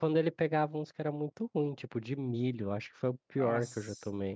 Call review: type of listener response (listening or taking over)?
listening